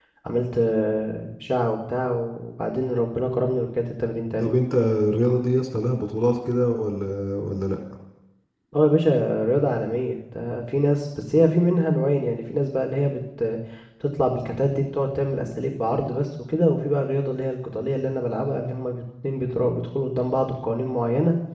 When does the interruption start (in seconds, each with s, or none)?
none